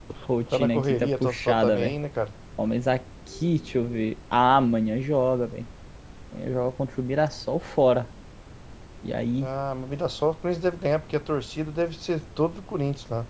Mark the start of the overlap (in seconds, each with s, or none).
0.5 s